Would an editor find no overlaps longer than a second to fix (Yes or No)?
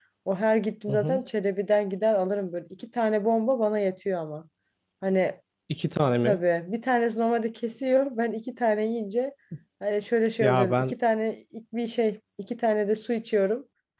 Yes